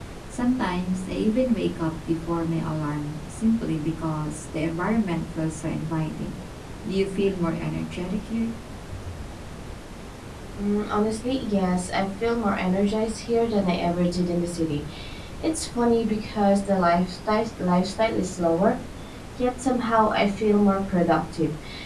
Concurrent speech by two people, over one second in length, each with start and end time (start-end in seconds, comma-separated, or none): none